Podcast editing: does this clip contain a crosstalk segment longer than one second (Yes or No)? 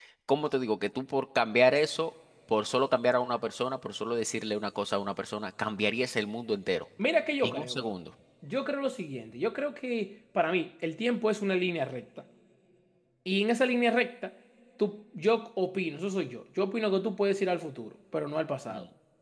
No